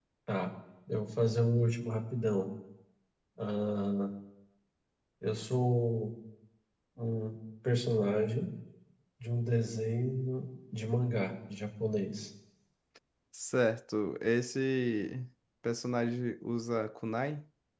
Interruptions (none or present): none